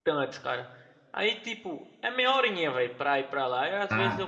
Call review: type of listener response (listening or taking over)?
listening